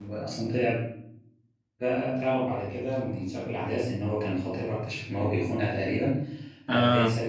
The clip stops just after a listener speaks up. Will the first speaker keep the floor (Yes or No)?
Yes